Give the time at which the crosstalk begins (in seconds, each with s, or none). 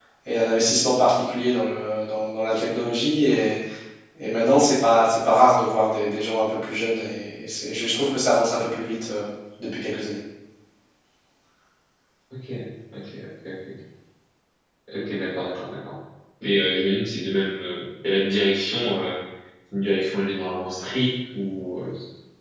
none